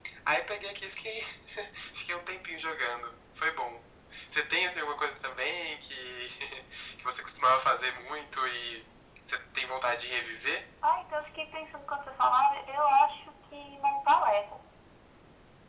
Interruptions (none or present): none